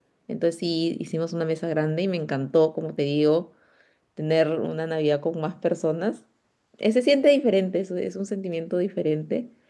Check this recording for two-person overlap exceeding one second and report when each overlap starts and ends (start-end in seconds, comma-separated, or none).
none